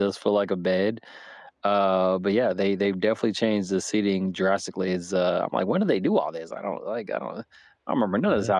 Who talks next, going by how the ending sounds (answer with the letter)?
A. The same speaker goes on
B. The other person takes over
A